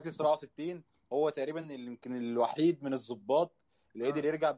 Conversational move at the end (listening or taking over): listening